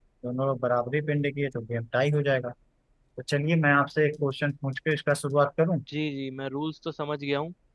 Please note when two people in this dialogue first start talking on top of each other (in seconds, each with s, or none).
none